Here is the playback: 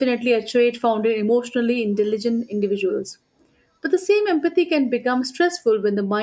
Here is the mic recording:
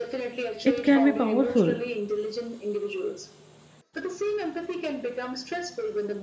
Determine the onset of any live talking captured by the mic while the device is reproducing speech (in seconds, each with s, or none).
0.6 s